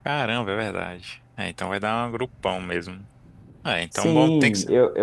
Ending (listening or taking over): taking over